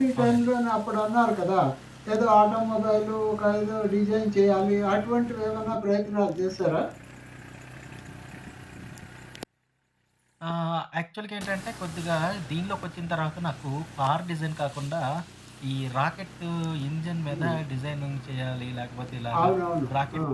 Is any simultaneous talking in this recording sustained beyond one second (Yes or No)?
No